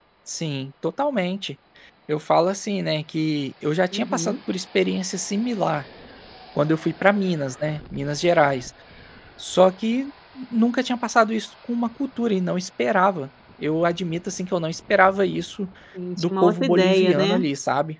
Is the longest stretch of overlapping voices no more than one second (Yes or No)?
No